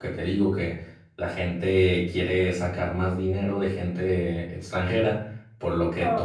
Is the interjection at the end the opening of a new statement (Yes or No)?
No